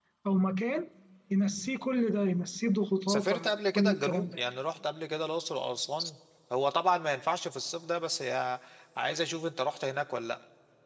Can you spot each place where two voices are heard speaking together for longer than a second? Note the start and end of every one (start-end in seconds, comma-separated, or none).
3.1-4.4